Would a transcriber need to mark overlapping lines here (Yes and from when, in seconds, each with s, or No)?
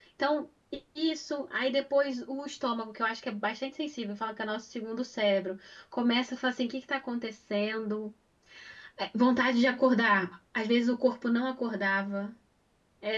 No